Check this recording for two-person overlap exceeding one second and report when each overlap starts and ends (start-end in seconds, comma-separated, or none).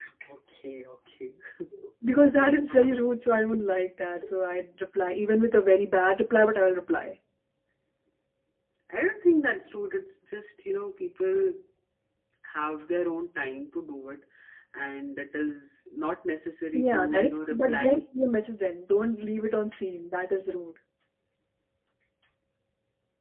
16.7-18.0